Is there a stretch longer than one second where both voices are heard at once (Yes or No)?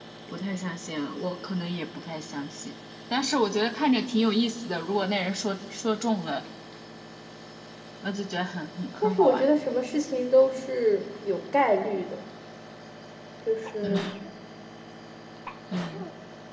No